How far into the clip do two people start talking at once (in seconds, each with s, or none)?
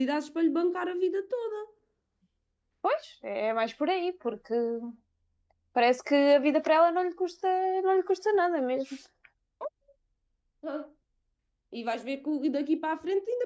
none